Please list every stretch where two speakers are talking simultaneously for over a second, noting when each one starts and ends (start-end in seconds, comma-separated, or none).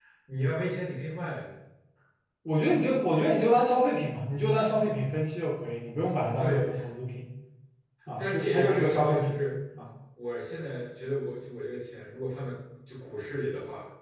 8.2-9.4